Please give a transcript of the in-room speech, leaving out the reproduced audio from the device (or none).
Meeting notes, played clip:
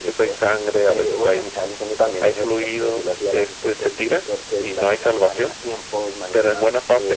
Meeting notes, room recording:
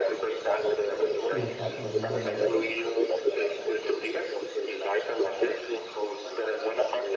Sí, cinco mil dólares.